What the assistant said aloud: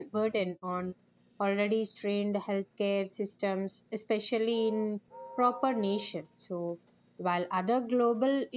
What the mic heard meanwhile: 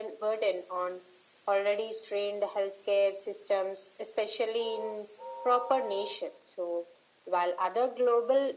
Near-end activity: none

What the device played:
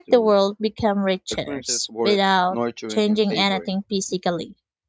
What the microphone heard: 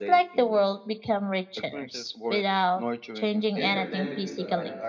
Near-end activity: present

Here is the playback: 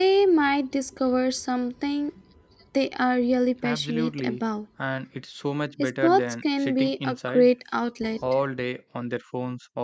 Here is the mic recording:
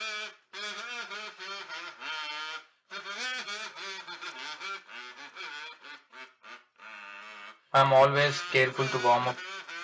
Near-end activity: present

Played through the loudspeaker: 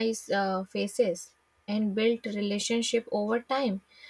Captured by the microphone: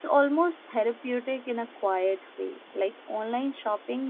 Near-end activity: present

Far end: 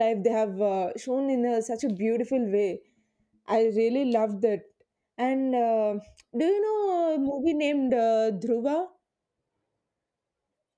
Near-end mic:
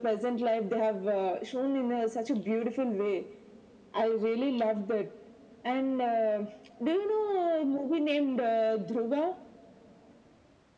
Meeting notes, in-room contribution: none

